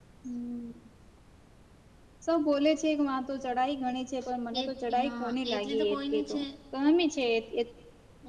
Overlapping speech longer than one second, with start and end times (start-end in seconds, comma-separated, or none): 4.6-6.4